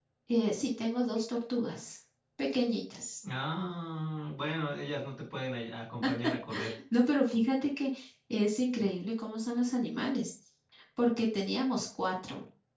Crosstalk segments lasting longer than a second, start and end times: none

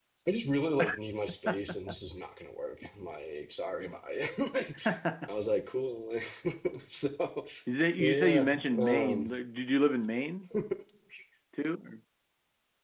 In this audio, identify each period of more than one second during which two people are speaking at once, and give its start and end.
8.0-9.3

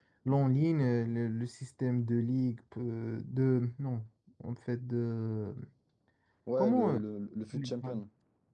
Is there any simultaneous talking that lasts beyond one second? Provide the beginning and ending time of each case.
none

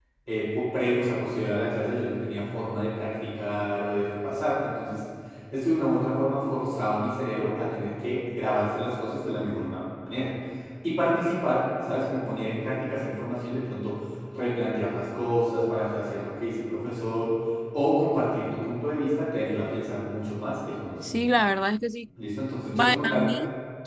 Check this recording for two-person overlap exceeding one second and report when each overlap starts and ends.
none

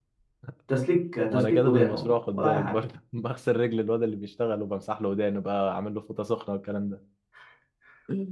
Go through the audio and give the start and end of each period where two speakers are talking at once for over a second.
1.3-2.7

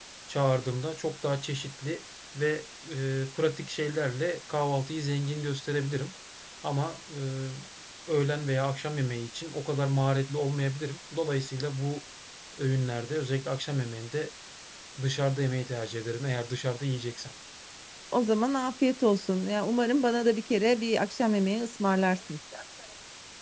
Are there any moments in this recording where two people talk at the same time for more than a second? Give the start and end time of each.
none

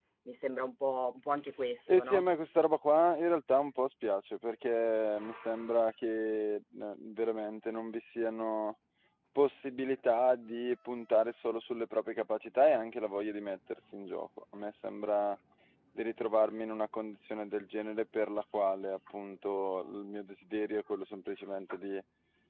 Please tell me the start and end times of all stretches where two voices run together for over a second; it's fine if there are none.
none

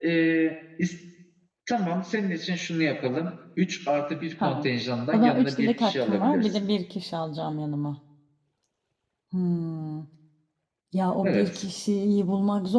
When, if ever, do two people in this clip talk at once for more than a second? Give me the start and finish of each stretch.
5.1-6.7

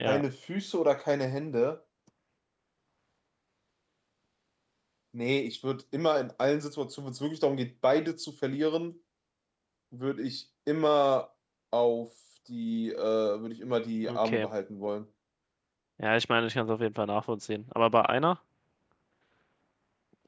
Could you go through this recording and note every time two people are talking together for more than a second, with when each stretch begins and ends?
none

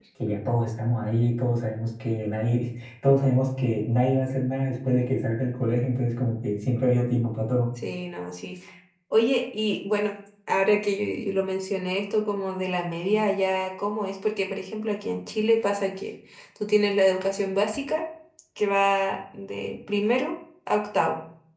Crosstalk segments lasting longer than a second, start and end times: none

